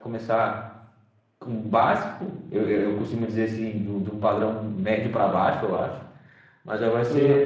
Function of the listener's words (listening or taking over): listening